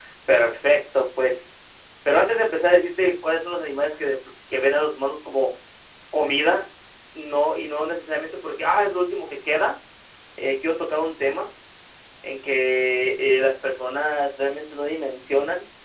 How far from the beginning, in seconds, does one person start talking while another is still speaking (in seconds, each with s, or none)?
none